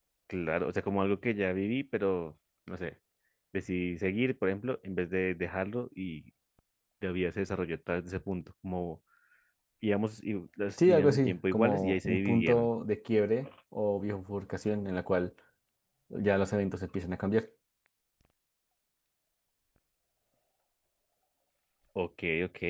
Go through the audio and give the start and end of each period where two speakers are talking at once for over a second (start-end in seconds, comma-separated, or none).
10.9-12.7